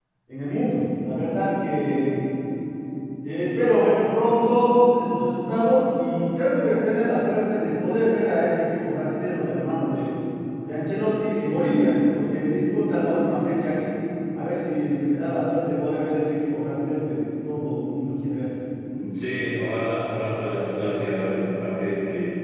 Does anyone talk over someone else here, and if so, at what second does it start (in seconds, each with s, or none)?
none